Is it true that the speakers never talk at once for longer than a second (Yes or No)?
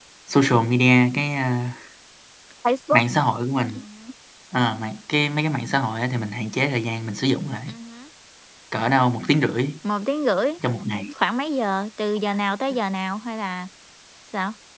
Yes